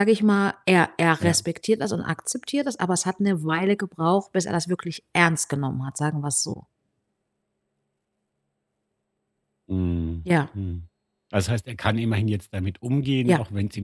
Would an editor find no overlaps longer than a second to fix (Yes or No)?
Yes